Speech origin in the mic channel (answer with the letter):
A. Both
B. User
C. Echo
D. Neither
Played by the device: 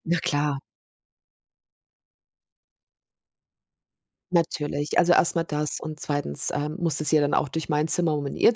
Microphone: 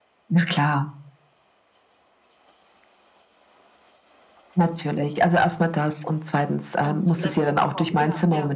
A